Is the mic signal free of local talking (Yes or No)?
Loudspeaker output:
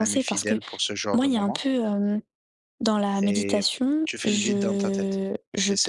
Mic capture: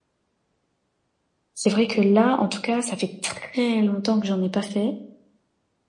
No